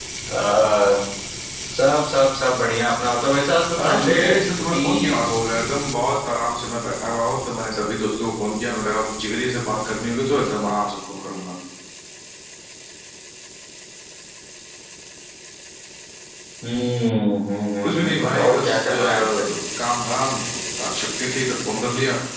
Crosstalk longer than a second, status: present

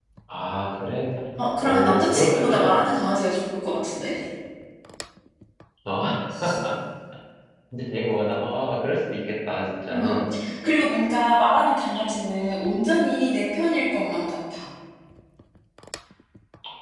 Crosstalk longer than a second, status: present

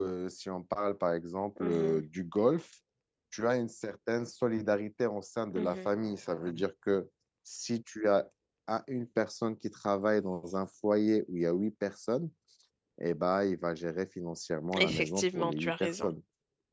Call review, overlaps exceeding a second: present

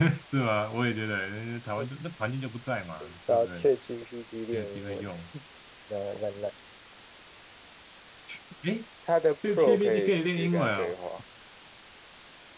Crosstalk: present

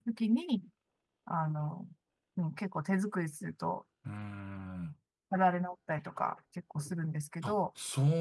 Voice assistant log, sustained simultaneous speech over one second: none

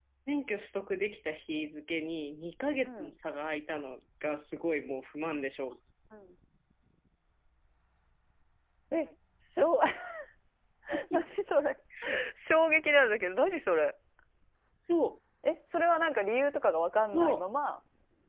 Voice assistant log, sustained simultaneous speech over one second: none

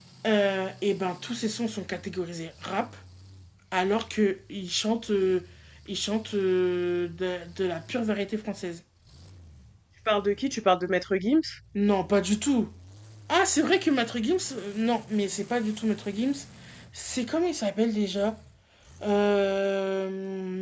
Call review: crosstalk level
none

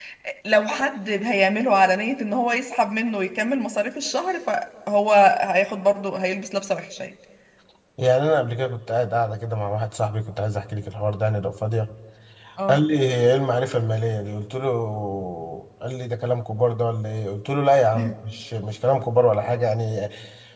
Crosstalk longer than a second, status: none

